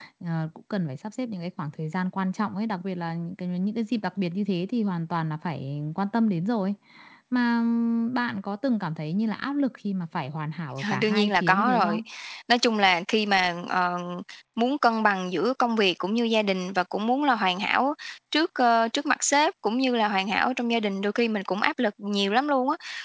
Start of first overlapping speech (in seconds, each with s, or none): 10.8 s